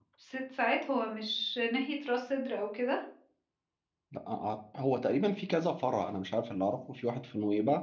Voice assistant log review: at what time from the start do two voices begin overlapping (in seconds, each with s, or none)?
none